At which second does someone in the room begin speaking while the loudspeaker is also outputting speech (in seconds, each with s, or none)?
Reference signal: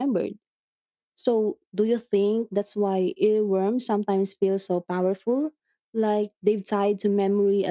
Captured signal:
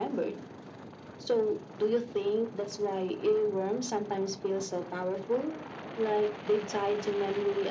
none